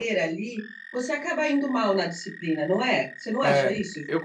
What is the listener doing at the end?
taking over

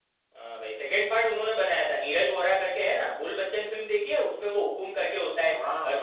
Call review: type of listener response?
taking over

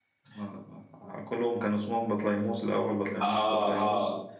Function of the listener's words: taking over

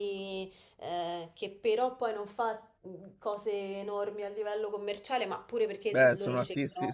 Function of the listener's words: taking over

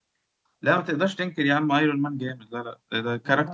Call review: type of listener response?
listening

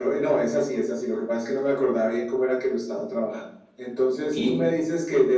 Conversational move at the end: listening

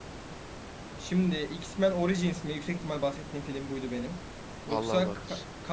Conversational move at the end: listening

